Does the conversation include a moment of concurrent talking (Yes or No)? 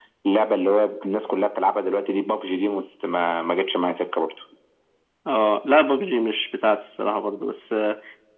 No